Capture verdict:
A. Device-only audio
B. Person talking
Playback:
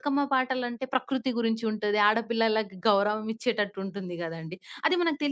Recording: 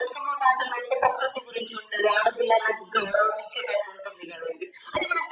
A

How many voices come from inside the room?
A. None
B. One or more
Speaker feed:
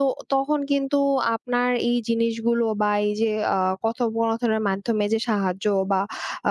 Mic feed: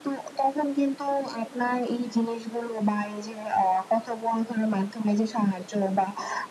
A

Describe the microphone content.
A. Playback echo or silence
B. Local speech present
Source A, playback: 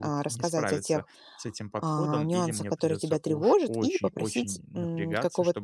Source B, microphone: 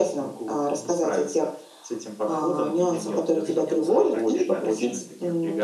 B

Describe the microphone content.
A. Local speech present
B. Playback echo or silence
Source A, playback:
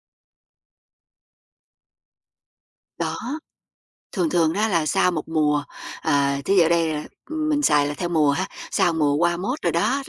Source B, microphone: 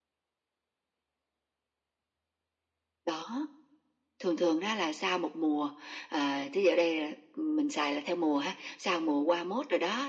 B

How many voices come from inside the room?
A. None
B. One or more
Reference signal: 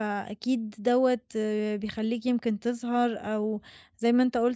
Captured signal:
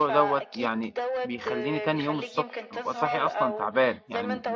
B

